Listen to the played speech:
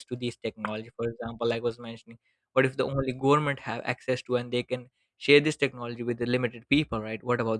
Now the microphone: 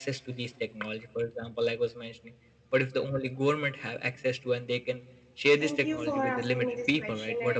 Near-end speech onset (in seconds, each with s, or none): 5.6 s